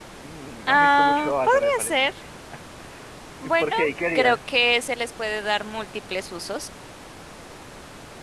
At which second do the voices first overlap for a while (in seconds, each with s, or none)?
0.7 s